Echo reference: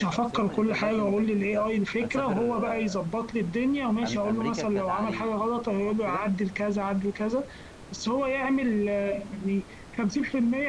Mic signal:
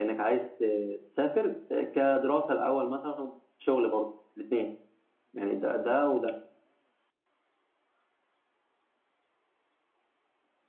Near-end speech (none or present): present